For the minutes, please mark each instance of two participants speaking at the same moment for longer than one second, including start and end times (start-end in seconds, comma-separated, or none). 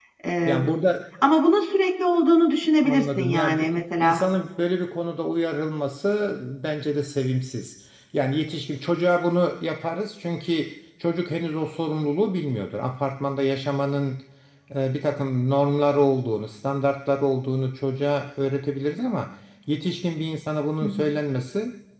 2.8-4.2